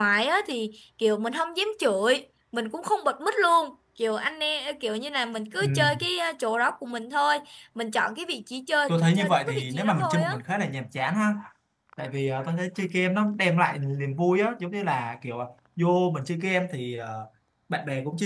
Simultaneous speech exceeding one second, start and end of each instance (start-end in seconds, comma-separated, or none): 8.9-10.3